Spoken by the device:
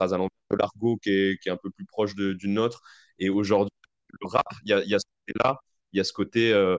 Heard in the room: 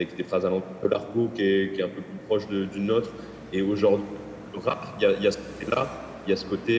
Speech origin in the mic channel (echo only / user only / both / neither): echo only